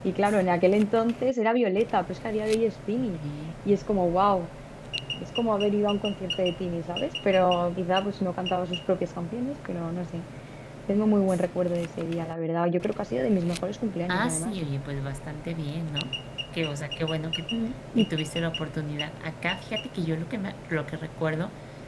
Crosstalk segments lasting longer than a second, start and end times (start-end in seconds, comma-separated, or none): none